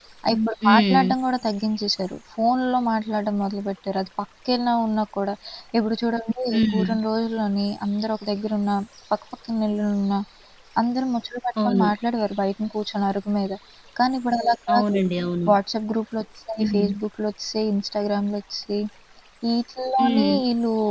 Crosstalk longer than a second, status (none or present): none